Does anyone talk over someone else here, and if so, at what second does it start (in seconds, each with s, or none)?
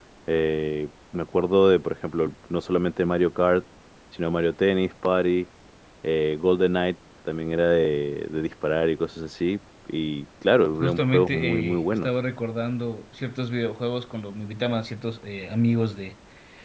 10.8 s